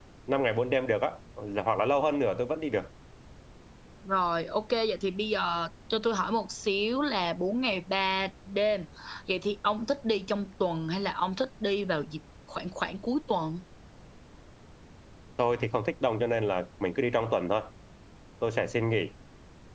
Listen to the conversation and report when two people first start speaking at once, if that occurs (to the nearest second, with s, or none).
none